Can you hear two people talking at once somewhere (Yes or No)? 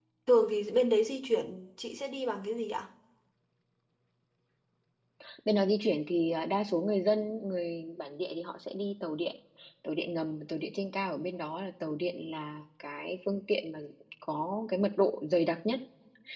No